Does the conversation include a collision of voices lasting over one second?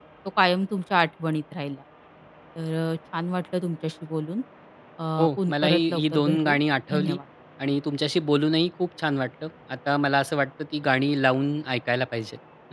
Yes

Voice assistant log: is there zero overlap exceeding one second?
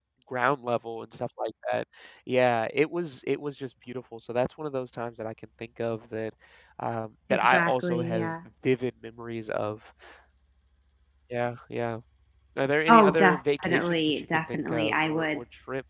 No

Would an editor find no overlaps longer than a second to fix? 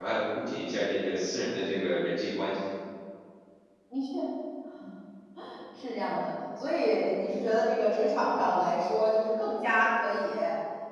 Yes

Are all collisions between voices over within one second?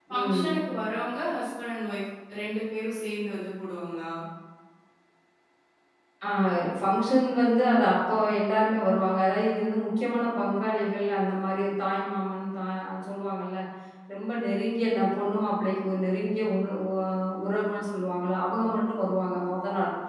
Yes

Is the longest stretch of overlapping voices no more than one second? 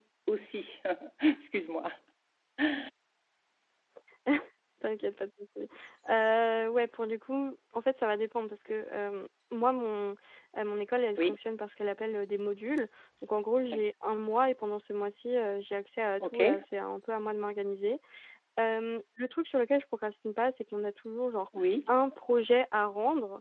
Yes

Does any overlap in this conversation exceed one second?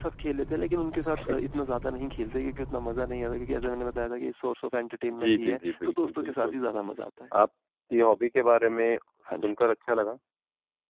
Yes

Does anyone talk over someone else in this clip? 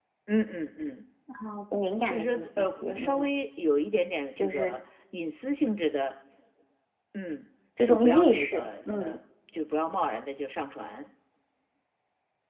Yes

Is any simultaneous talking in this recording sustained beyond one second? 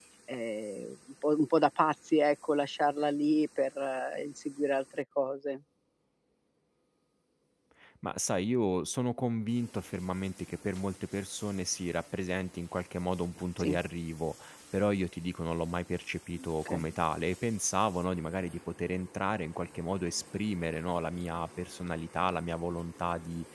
No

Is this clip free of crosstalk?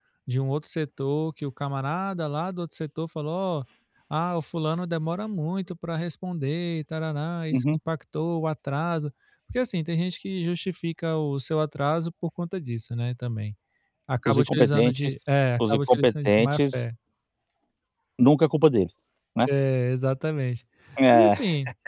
No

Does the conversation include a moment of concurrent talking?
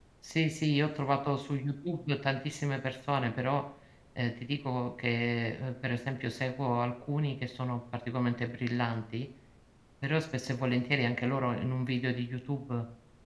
No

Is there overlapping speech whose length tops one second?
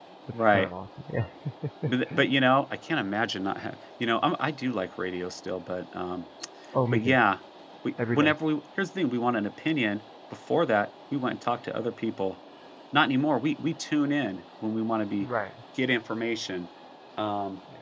No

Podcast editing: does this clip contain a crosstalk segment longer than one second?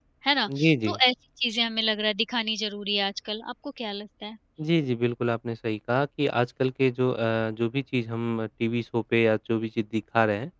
No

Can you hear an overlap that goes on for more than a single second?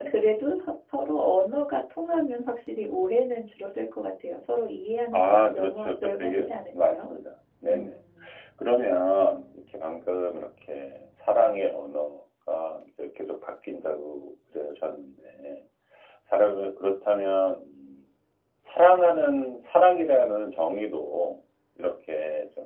Yes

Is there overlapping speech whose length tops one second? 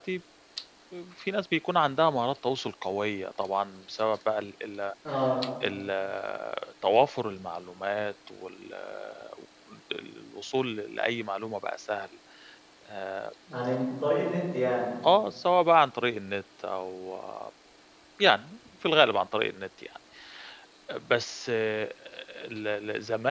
No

